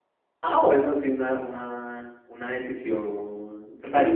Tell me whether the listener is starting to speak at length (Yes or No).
Yes